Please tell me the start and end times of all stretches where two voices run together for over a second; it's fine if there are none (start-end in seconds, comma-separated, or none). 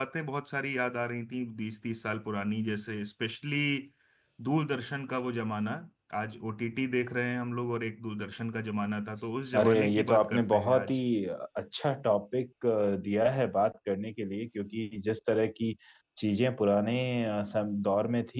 9.6-11.0